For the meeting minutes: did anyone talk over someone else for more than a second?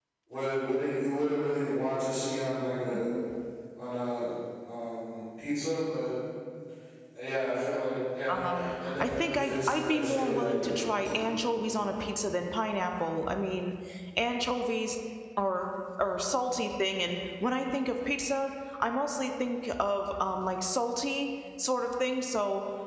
Yes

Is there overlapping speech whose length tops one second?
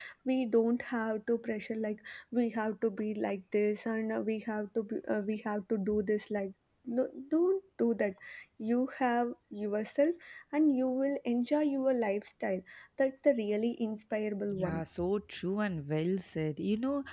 No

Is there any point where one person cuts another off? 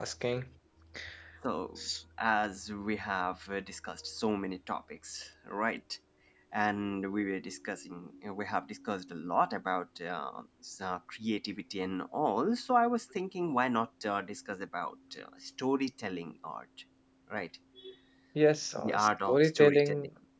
Yes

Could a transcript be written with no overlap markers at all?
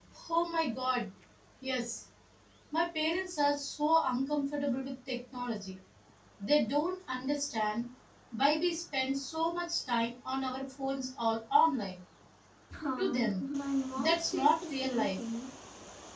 No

